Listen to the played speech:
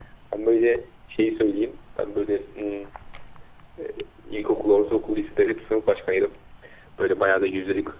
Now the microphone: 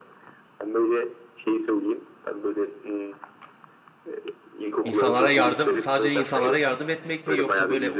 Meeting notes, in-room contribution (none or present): present